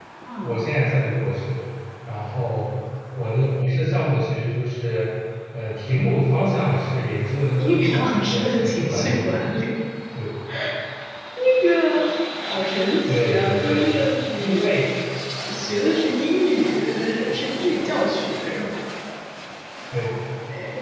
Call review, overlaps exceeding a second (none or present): present